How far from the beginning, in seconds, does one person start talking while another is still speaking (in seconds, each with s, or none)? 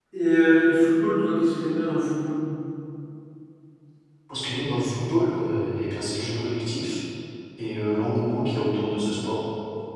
none